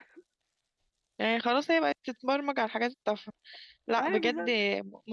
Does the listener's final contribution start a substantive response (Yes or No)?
No